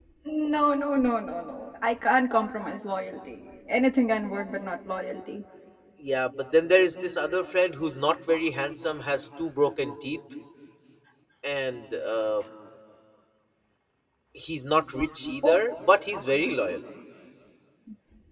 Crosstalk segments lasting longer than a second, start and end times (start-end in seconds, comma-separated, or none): none